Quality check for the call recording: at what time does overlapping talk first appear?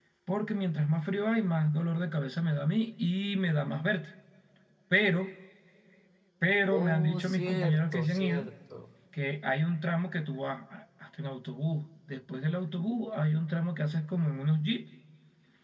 6.7 s

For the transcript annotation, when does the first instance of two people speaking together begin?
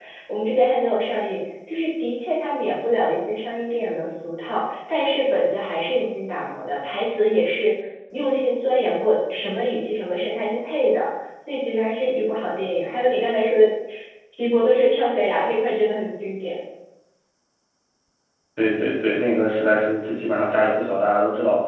none

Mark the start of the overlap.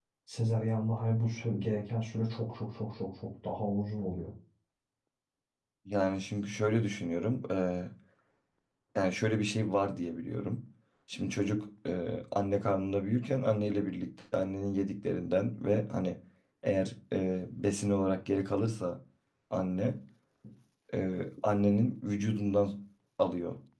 none

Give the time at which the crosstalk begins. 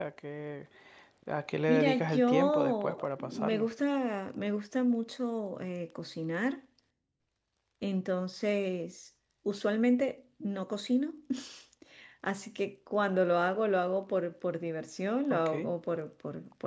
1.7 s

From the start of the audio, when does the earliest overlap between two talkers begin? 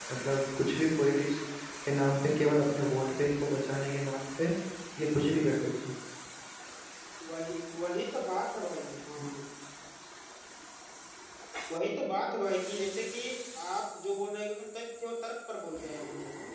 none

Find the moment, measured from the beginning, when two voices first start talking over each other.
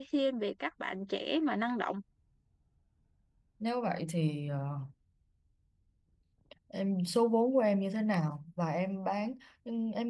none

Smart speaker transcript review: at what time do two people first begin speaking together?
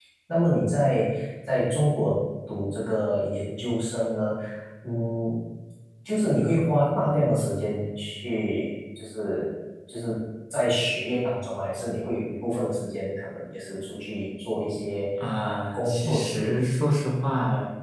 15.2 s

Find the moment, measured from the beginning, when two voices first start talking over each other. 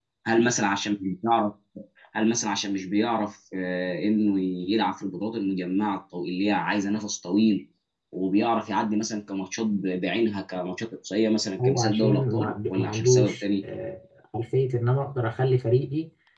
11.6 s

